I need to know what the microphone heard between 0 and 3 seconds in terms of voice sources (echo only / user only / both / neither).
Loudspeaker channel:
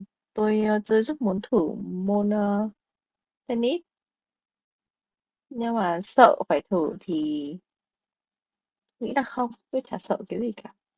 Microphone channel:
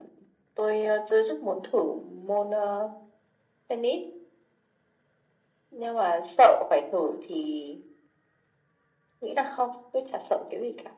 echo only